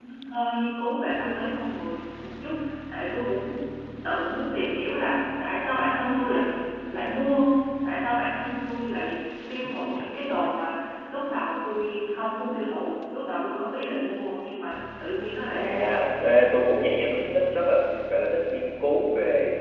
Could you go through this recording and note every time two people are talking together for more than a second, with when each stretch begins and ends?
none

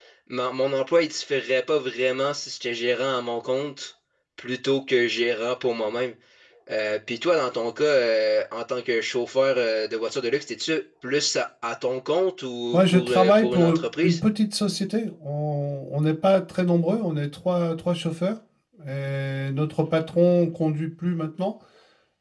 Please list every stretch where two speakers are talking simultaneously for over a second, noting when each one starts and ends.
12.7-14.2

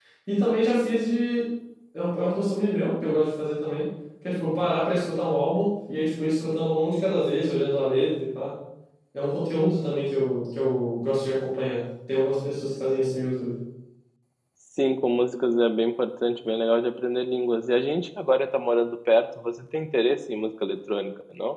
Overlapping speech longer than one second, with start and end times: none

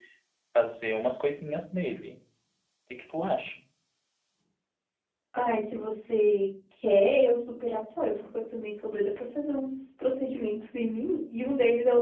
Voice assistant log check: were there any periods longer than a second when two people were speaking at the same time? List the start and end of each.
none

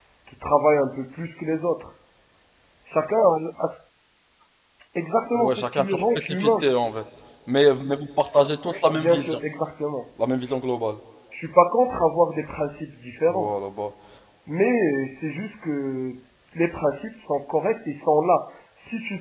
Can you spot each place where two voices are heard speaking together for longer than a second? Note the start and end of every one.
5.3-6.7

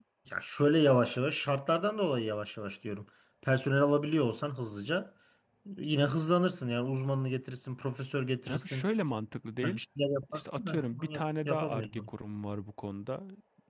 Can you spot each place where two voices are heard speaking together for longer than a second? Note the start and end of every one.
10.3-12.1

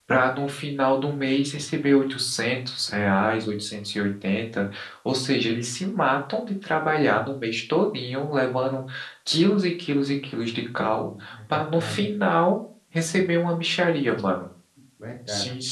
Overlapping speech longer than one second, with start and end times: 10.8-12.1

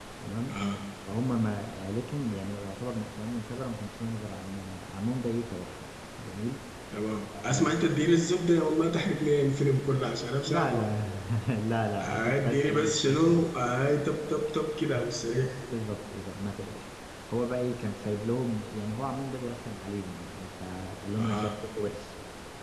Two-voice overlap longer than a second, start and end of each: 12.0-13.5

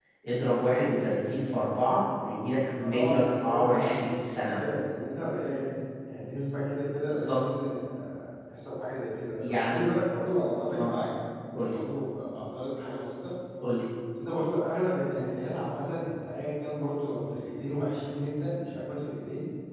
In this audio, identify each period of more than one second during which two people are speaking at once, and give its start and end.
2.8-4.0

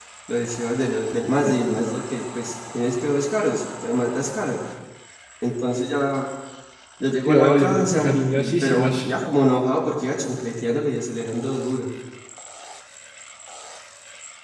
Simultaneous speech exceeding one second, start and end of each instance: 7.3-9.0

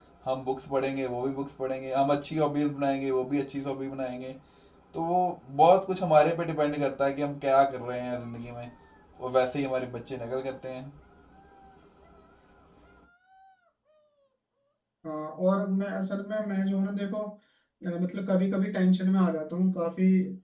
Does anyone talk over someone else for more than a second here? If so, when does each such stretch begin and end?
none

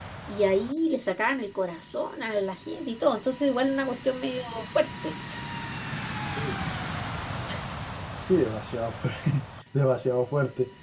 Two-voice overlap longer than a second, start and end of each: none

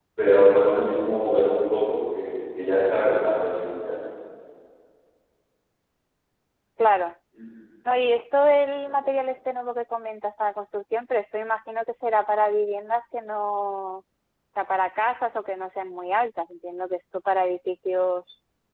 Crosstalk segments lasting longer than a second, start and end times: none

